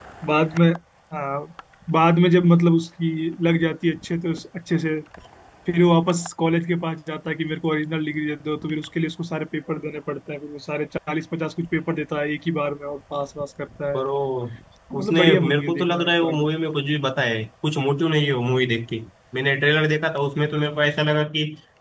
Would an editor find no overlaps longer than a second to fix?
No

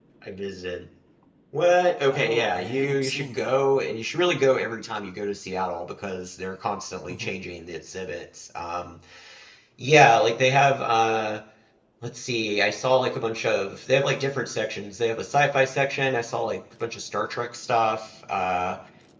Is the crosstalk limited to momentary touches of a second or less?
No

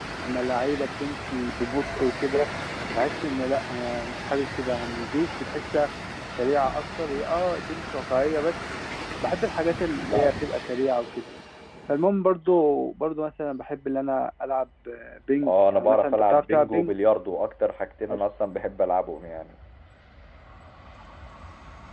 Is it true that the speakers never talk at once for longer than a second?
No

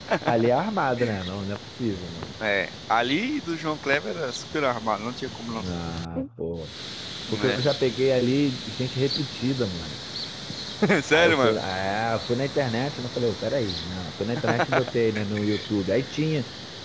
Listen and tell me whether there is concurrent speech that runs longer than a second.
No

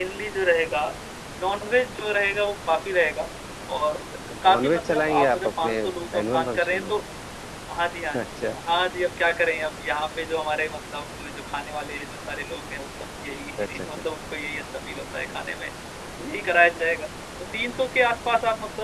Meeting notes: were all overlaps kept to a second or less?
No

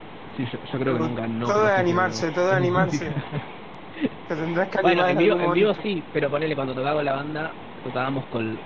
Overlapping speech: Yes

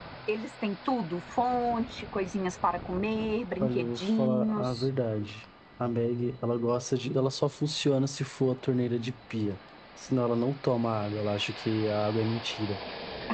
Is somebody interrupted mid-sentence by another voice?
Yes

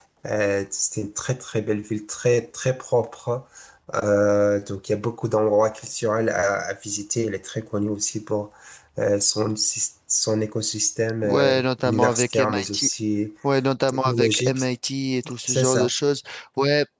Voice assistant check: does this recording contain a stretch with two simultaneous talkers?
Yes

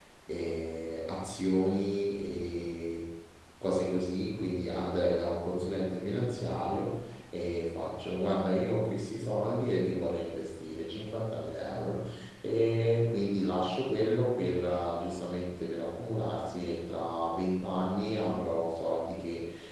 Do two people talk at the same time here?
No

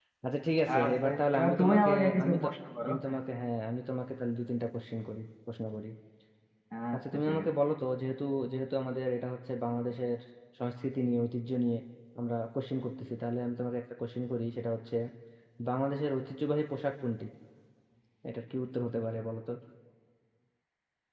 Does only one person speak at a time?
No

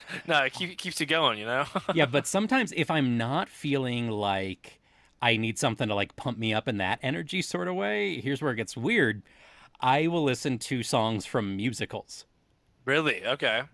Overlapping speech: No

